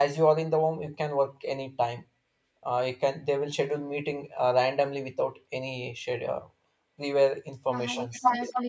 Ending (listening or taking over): taking over